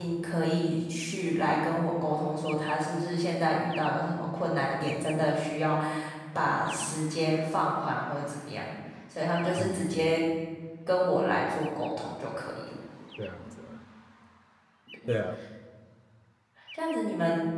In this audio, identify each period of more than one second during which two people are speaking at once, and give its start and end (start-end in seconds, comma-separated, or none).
none